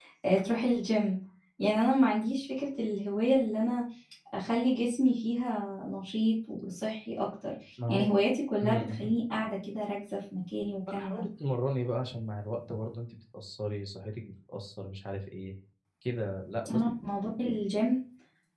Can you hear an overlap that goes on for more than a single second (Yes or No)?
No